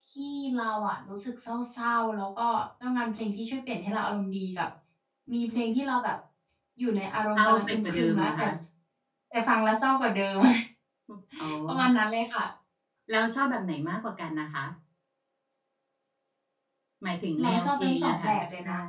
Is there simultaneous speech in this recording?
Yes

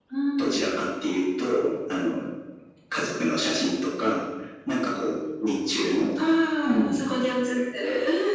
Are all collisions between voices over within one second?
Yes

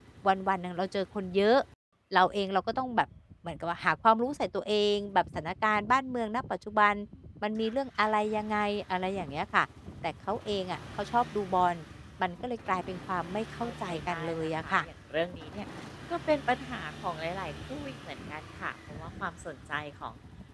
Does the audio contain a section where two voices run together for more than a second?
Yes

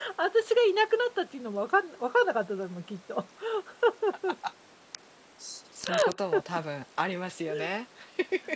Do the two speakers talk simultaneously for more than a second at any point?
No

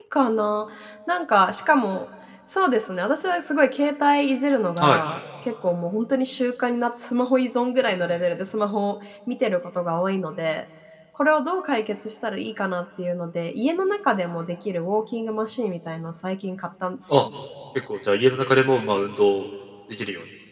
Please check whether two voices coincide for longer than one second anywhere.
No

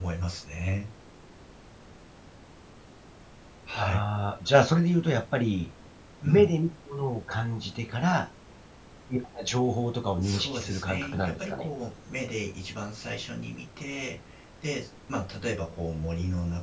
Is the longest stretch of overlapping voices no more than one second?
No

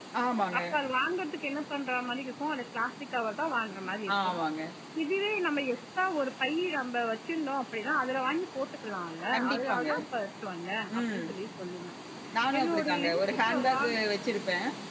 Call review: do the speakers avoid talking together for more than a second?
No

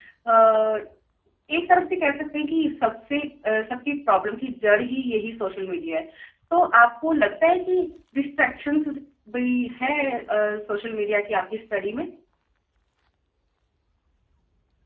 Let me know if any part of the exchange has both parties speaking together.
No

